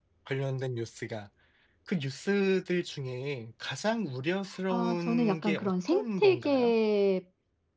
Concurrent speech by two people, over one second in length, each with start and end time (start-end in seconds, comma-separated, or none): 4.7-6.7